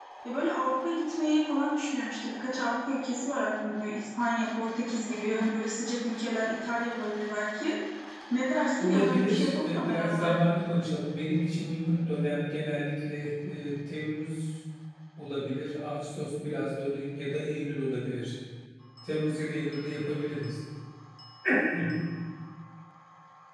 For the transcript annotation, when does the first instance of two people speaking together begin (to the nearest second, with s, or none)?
9 s